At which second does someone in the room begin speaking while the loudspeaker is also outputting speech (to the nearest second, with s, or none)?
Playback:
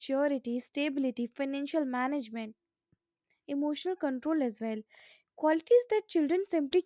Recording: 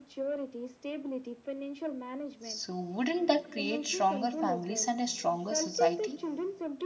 2 s